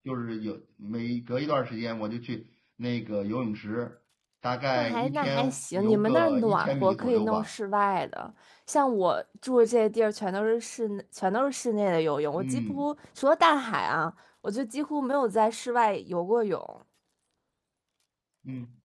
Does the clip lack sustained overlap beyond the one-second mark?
No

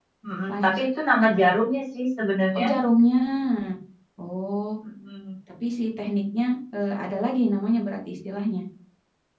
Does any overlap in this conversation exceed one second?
No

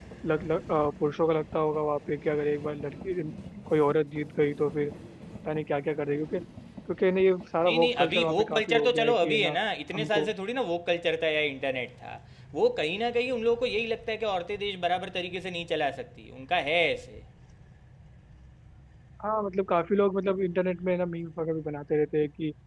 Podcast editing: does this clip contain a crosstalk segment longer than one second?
Yes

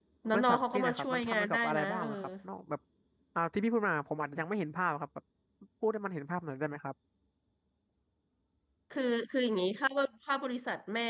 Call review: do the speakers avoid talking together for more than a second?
No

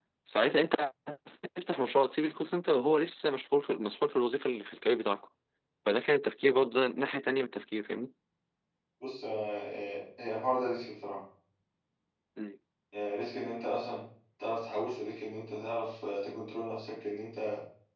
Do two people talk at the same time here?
No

